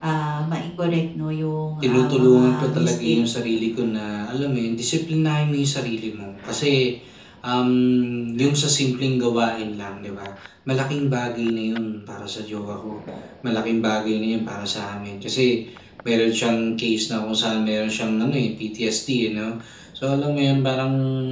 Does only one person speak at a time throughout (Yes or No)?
No